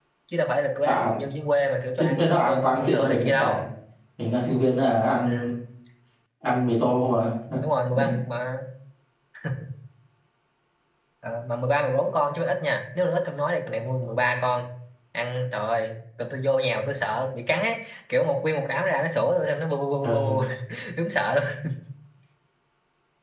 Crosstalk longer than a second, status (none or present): present